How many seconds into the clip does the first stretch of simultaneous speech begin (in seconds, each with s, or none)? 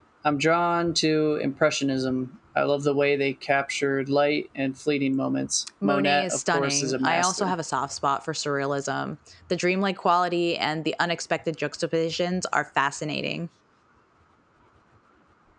5.8 s